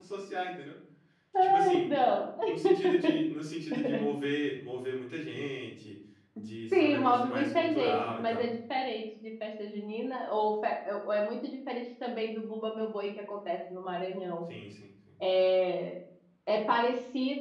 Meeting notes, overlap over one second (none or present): present